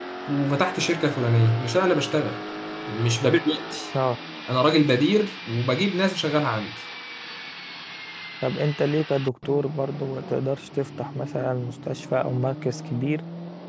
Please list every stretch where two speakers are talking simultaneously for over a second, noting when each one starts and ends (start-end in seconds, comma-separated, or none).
none